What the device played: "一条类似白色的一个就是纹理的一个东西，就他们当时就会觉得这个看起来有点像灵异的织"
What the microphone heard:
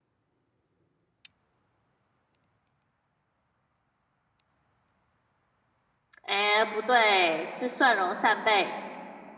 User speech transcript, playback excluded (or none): 哎，不对，是蒜蓉扇贝。